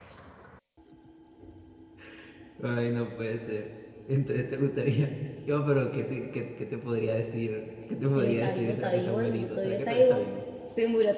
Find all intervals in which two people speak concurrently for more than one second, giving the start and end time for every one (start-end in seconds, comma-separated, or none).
8.2-10.2